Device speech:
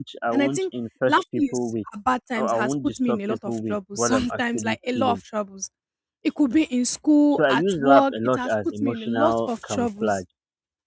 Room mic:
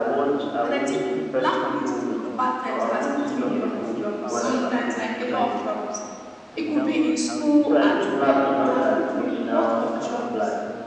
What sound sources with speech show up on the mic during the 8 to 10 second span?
both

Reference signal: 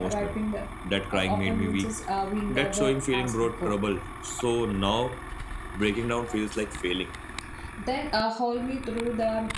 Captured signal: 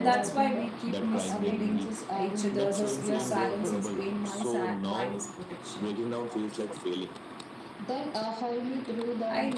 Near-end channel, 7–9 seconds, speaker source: echo only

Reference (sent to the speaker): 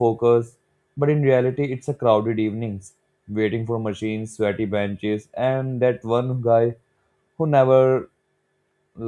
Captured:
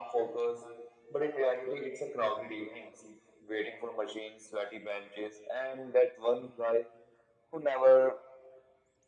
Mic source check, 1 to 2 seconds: echo only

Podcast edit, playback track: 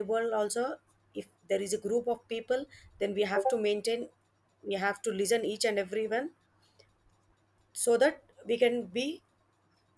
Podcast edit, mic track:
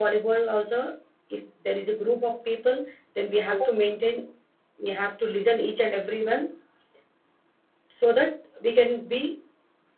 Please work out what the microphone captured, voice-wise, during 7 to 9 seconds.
echo only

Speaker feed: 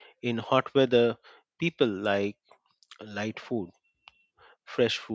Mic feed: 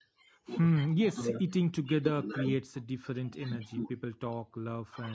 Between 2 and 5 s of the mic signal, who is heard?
both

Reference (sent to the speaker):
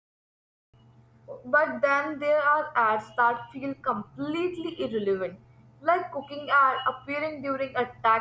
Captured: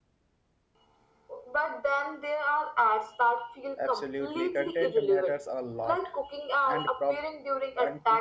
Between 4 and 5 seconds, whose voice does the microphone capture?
both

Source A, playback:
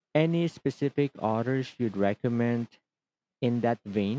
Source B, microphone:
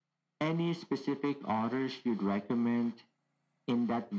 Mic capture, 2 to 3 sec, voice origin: echo only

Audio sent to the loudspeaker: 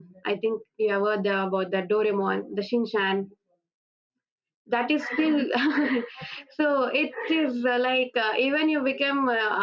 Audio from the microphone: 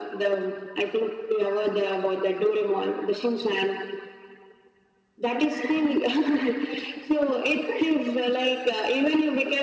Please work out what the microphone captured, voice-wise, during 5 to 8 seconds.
echo only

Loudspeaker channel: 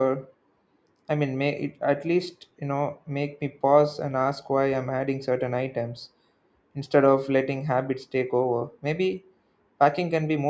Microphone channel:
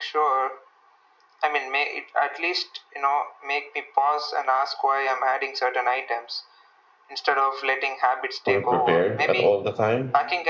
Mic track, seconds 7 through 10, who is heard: both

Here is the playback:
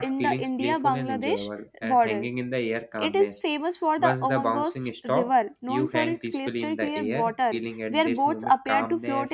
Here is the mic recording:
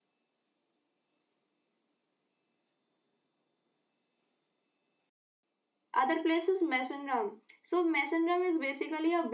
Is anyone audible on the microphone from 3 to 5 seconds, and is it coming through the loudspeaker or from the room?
neither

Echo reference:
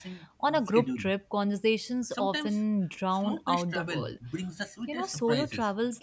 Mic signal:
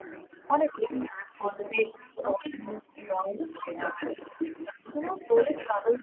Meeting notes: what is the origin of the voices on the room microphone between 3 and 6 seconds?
echo only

